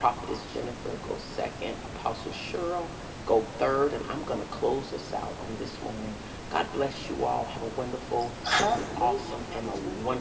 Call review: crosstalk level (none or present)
present